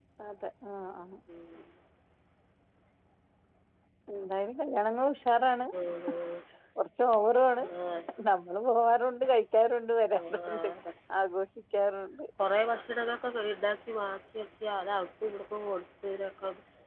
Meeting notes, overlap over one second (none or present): none